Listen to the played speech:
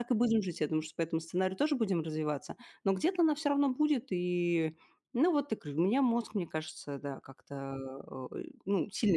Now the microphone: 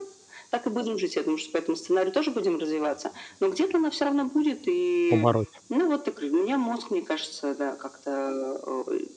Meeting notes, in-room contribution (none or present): present